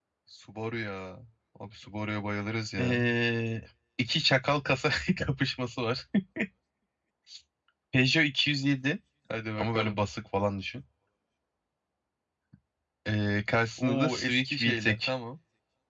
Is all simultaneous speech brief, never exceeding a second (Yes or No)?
No